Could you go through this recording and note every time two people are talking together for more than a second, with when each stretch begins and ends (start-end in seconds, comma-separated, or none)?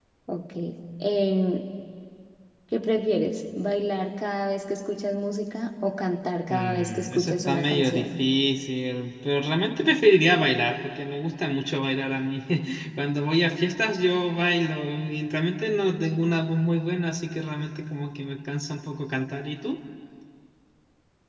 6.5-8.2